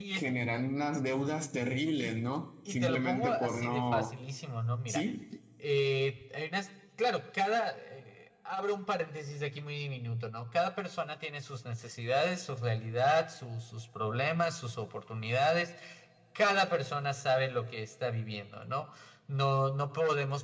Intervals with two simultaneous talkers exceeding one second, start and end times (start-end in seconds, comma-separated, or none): 2.7-4.1